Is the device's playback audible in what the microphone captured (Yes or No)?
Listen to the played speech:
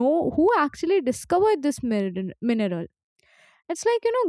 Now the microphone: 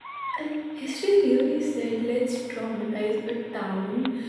No